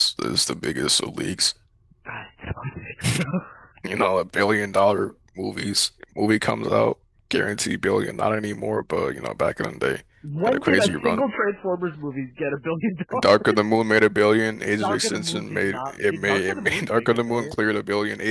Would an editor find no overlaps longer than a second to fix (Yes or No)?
No